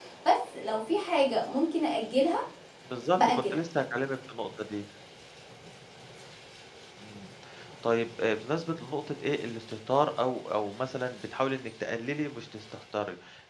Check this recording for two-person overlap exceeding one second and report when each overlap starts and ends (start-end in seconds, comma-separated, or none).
none